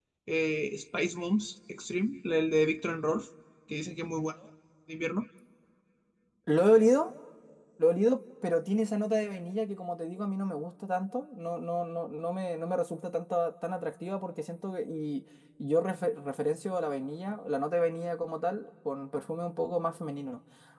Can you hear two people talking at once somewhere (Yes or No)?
No